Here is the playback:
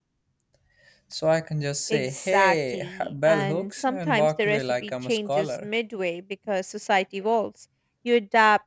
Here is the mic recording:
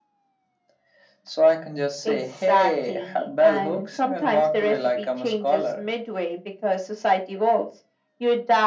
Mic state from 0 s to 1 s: neither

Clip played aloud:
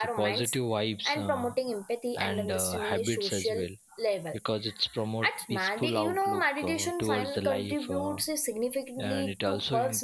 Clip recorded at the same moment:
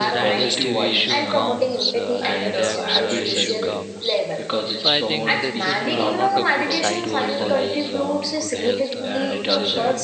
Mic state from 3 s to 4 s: both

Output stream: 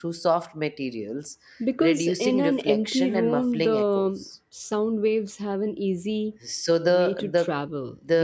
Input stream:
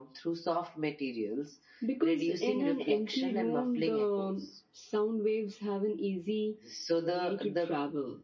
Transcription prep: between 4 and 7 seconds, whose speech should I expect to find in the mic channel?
echo only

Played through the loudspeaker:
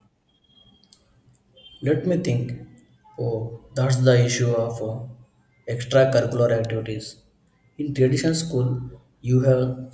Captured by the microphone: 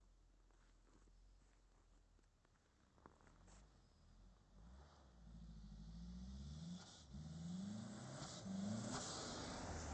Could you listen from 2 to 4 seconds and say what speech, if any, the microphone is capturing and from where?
neither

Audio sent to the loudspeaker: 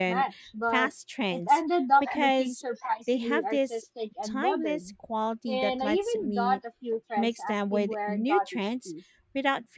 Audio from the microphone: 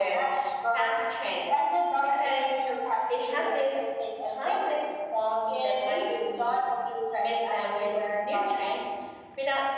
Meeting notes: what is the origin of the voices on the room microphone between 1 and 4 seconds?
echo only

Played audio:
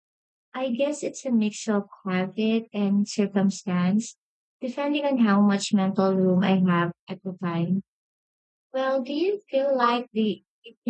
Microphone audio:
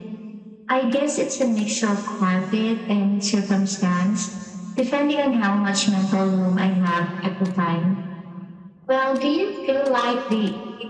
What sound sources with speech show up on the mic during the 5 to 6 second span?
echo only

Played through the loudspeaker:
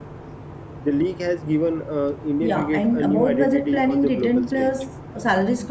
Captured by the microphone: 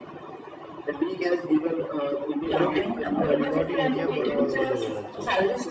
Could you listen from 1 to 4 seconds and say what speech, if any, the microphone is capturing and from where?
both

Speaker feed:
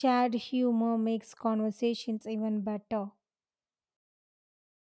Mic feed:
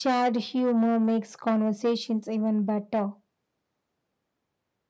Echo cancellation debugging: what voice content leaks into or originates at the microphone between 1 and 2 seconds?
echo only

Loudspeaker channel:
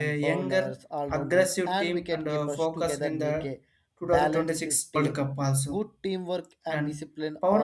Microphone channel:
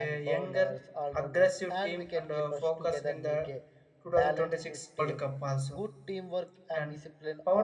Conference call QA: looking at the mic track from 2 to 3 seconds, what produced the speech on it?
echo only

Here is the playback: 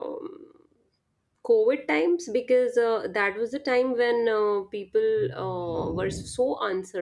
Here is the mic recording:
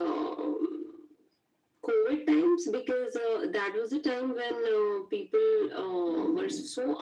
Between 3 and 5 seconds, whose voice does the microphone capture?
echo only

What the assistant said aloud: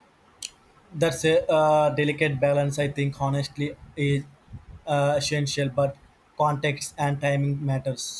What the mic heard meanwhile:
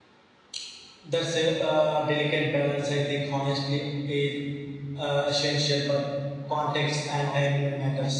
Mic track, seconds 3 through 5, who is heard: echo only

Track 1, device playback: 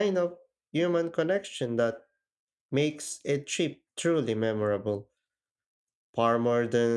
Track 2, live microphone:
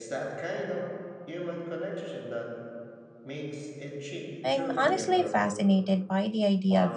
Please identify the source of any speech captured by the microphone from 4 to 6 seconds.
both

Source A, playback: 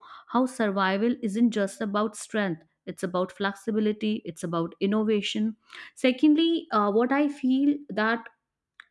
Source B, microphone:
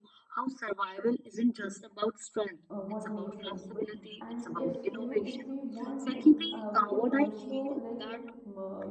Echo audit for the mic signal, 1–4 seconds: both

